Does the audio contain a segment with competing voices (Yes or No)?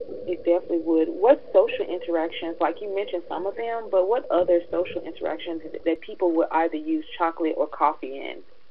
No